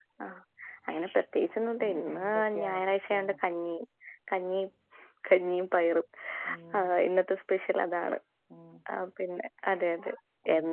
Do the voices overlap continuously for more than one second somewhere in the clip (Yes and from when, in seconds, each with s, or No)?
Yes, from 1.8 s